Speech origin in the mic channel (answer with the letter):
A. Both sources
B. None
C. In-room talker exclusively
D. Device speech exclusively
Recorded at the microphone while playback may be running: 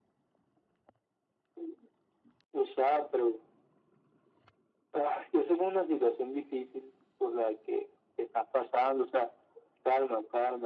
D